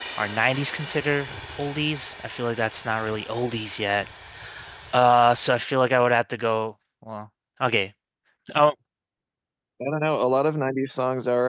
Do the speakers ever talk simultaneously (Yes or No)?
No